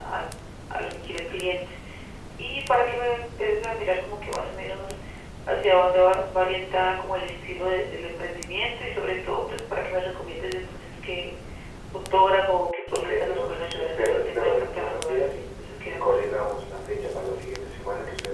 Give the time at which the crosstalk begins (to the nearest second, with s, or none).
13 s